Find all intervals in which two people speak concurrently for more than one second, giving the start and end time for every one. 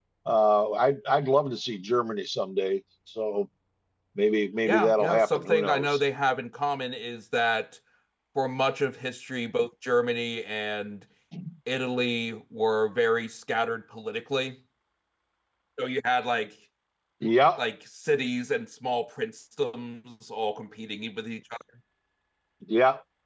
4.7-6.0

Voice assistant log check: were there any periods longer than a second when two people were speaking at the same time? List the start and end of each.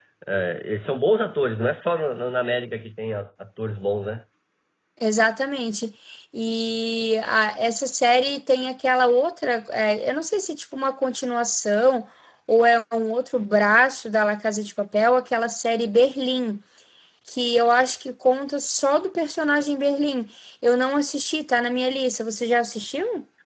none

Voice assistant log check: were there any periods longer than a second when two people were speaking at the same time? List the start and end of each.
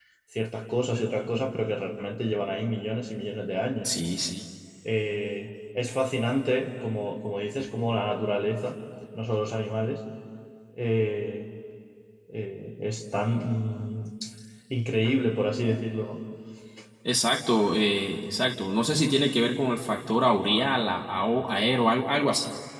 none

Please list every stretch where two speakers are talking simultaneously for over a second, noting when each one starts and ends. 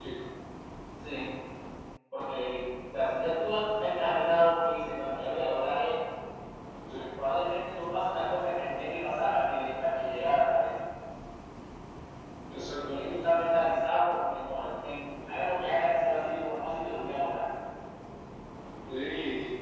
none

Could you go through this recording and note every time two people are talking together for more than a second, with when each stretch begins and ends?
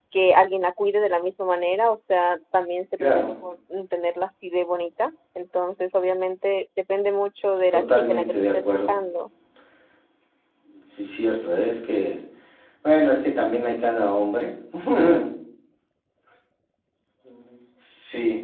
7.7-8.9

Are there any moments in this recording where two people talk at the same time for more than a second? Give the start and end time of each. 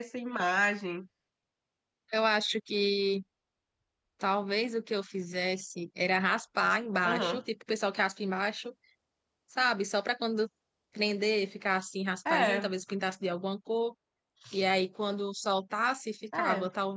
none

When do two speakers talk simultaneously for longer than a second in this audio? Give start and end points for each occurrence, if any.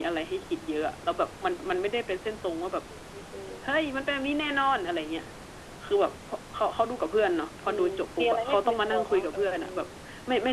7.7-9.6

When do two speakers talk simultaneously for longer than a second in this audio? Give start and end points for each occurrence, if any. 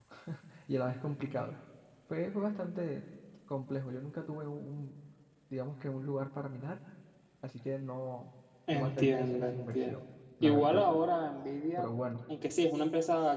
8.7-10.0

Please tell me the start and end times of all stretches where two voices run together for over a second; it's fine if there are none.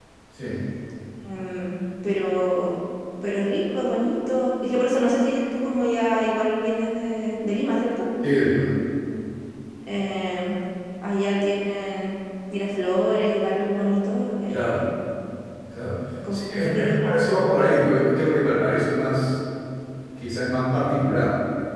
16.3-17.7

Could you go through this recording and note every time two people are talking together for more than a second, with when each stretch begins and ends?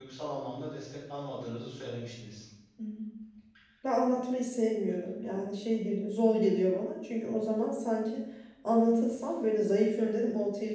none

